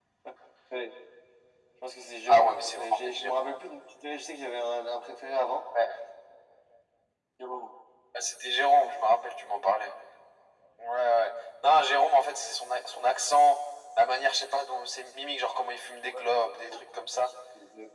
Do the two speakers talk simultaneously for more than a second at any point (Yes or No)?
Yes